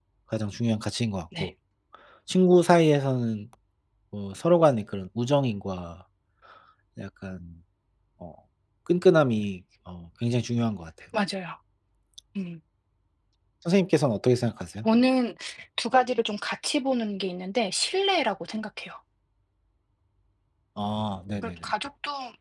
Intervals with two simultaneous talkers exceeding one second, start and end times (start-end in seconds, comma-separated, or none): none